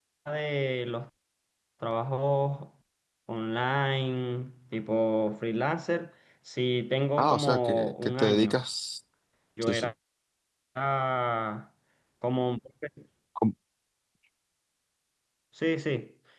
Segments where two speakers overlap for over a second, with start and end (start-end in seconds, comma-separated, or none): 7.2-8.6